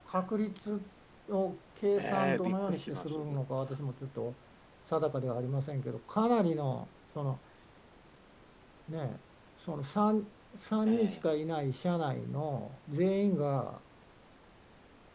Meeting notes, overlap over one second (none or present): present